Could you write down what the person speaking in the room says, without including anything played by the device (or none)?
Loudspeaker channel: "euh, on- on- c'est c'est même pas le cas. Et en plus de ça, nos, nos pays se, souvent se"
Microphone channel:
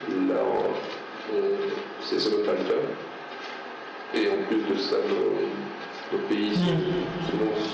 Hmm.